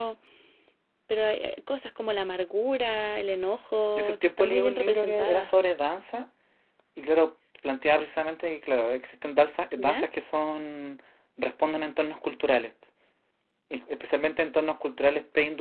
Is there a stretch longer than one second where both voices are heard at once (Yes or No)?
Yes